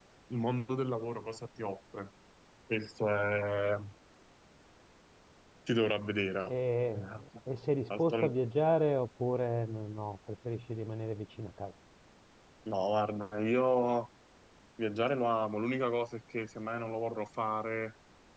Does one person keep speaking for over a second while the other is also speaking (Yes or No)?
No